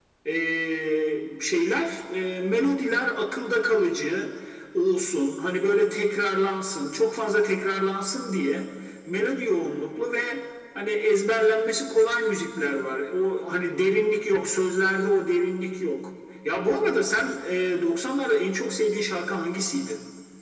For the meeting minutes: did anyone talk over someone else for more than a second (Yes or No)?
No